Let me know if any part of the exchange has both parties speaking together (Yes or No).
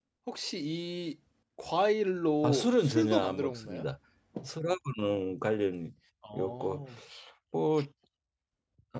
Yes